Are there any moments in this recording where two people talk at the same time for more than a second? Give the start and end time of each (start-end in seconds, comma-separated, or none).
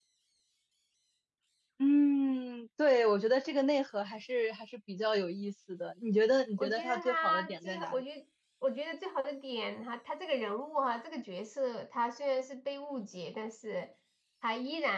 6.6-8.0